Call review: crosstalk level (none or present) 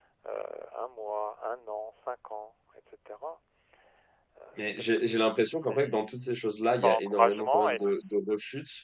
present